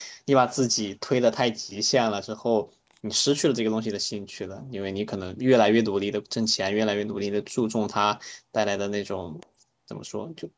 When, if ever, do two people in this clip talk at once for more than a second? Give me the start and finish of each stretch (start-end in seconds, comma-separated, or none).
none